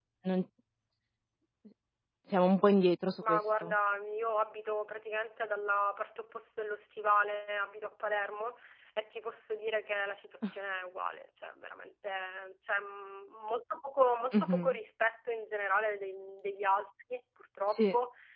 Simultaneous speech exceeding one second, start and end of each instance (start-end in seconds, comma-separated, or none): none